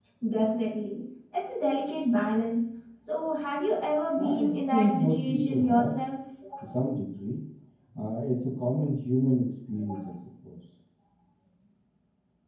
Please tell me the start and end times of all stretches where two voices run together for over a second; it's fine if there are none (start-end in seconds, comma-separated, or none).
4.2-5.9